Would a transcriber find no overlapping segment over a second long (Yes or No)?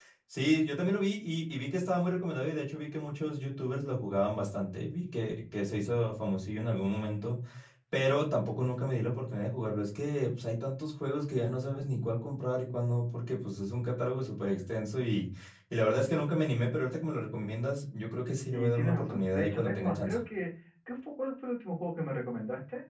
No